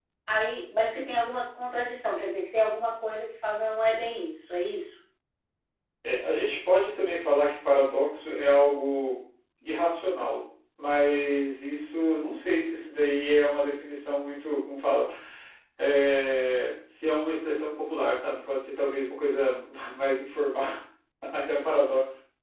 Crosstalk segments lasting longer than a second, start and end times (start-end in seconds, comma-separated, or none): none